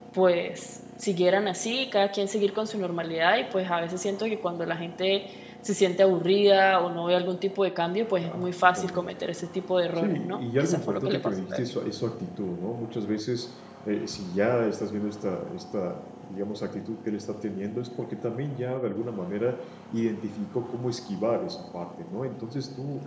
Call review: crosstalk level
present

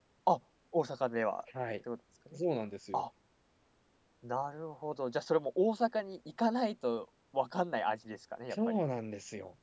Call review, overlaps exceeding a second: none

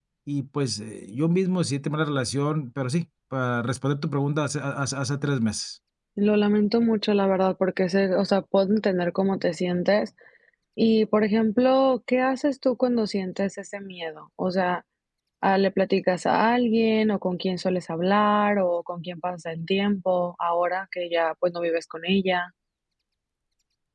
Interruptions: none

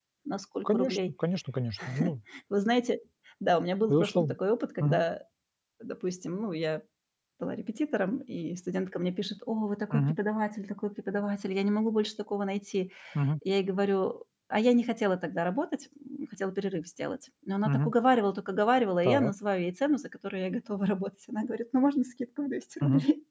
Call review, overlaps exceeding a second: none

